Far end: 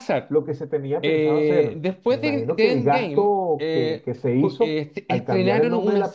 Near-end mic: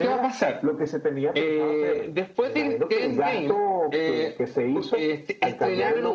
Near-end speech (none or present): none